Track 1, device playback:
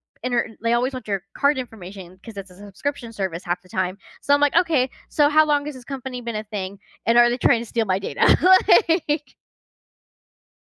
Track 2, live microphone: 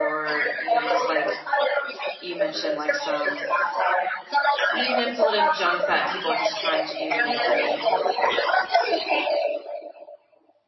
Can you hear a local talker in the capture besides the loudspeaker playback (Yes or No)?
Yes